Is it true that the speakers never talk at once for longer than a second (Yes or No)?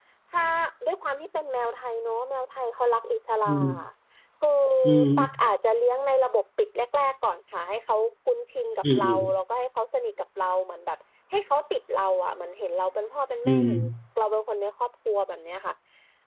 Yes